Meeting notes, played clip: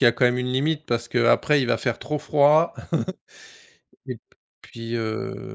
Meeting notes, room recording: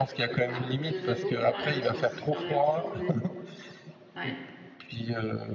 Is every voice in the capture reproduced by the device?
No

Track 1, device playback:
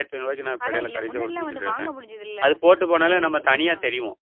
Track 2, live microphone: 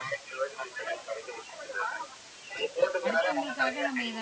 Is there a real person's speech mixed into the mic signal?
Yes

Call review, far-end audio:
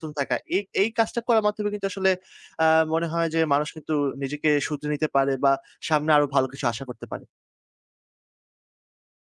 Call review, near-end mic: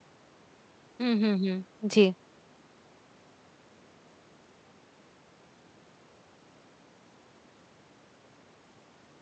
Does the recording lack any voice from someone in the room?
No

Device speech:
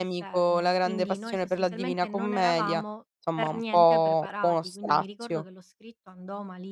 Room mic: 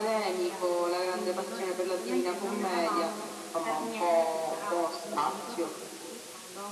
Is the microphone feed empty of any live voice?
Yes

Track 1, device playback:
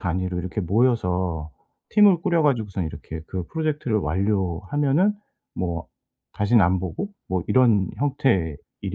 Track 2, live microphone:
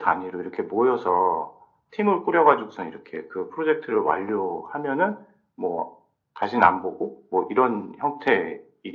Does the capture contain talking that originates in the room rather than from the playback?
No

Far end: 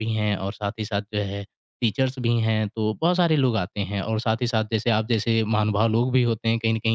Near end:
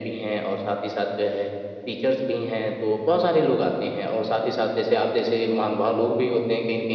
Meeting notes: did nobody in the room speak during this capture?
Yes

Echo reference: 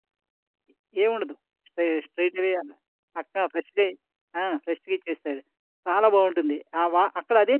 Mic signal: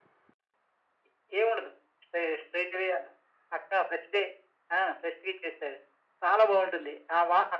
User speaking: No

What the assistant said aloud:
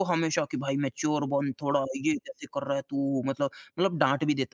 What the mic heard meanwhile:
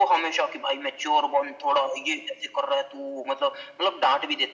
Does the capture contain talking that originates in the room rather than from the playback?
No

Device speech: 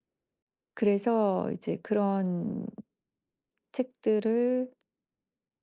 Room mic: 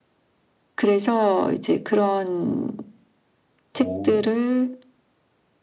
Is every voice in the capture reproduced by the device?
No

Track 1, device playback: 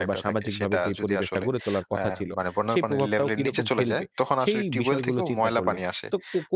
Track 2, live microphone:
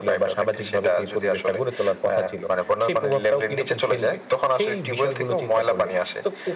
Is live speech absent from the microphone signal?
Yes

